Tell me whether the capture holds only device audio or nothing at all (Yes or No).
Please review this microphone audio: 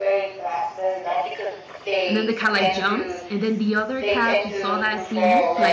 No